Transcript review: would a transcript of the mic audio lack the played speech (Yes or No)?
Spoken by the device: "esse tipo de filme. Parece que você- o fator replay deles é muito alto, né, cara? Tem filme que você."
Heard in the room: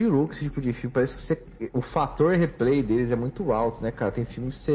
No